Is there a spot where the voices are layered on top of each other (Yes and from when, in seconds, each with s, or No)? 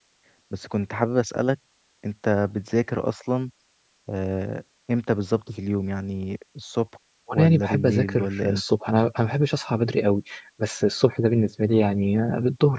Yes, from 7.3 s